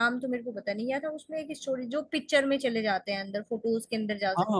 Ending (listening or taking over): taking over